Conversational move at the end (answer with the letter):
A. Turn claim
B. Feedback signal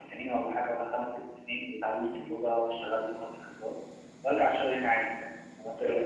A